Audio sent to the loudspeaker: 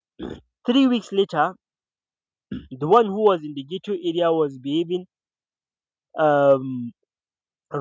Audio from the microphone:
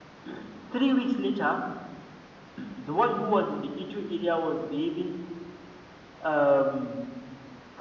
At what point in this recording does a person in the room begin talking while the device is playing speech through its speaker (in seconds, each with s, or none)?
none